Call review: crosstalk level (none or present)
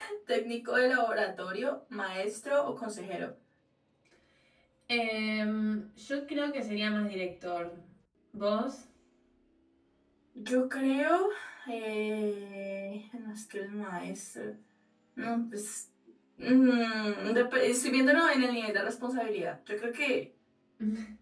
none